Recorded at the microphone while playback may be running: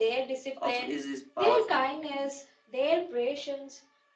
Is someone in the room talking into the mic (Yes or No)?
Yes